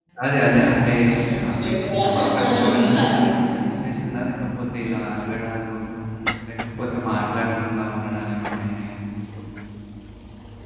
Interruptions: present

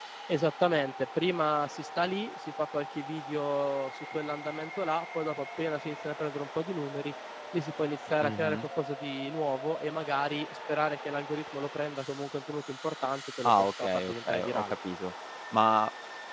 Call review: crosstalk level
present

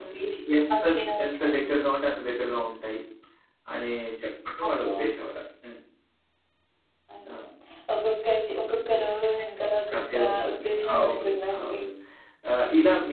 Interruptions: present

